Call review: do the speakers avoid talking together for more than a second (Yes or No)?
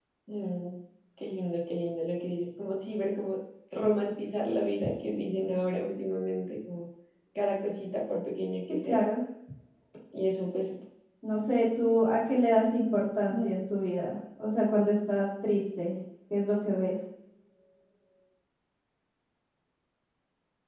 Yes